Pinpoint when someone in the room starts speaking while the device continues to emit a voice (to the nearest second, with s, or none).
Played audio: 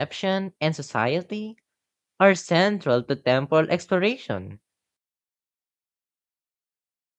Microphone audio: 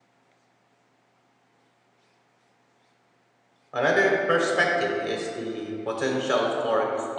4 s